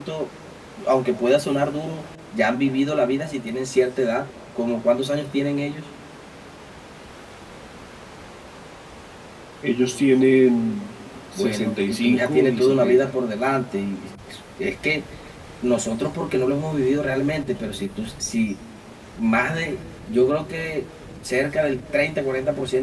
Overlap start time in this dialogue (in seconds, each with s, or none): 11.3 s